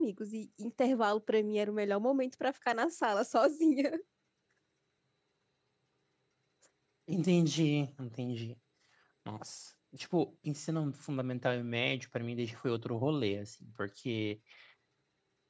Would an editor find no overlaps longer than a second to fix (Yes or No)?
Yes